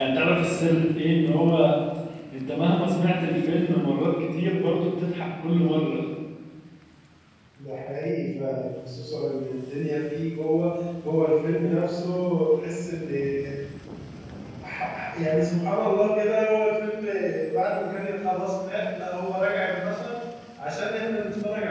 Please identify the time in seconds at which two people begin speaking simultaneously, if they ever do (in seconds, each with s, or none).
none